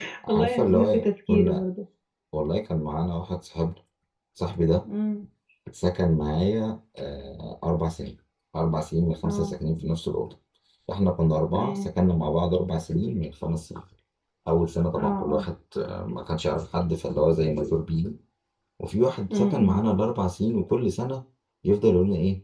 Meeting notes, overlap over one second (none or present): present